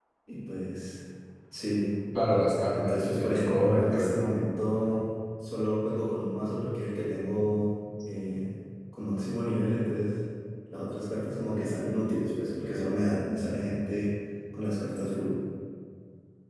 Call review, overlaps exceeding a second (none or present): present